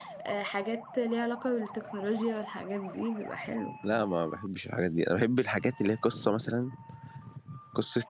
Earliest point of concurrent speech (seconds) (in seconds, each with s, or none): none